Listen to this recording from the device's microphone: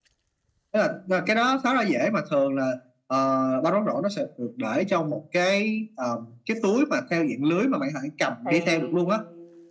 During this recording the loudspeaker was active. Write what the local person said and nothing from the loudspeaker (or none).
thì